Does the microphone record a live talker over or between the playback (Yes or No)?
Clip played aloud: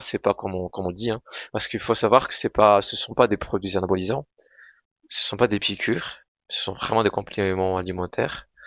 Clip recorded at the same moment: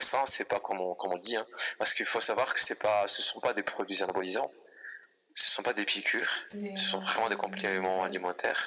Yes